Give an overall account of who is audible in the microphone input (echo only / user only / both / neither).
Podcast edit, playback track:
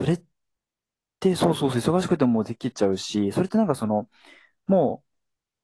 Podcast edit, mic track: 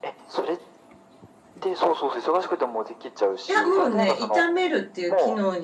both